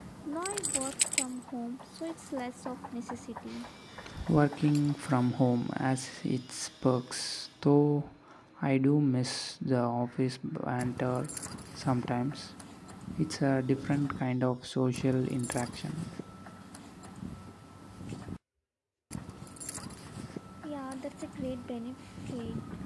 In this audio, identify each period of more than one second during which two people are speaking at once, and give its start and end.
none

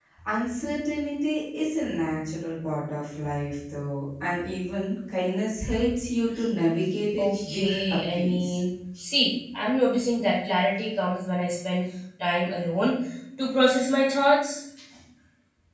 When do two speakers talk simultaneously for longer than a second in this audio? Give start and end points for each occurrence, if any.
7.2-8.6

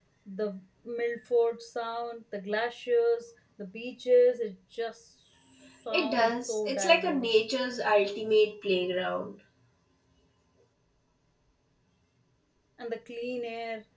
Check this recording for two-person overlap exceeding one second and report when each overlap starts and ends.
5.9-7.3

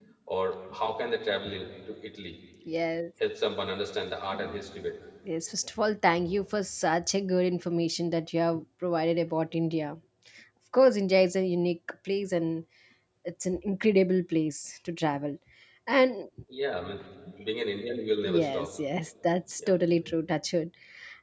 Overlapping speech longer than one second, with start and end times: none

